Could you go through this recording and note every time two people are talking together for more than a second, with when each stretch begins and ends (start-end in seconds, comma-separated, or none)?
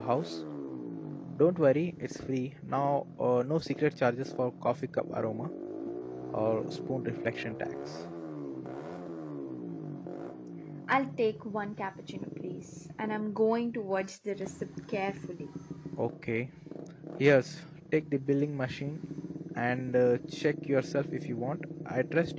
none